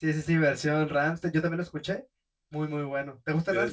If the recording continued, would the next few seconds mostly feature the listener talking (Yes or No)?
Yes